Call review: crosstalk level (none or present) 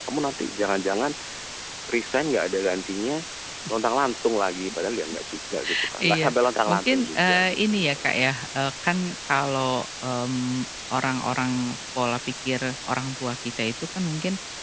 present